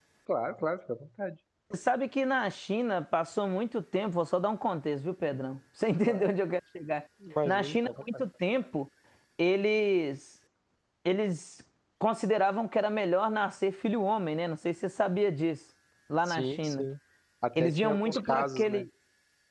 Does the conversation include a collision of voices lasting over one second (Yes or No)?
Yes